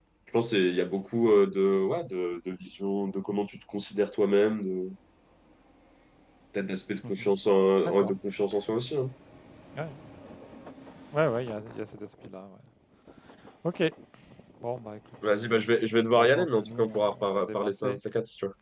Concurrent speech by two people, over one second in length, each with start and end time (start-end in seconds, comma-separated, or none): 16.1-18.0